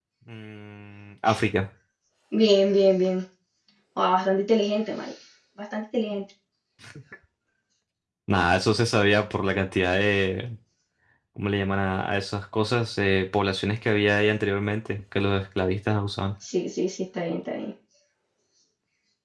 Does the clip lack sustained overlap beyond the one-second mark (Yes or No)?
Yes